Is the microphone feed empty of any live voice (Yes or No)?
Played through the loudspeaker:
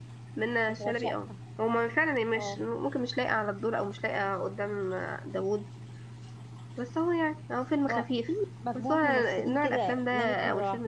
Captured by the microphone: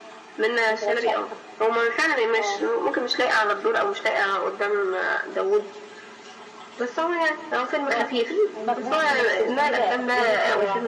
No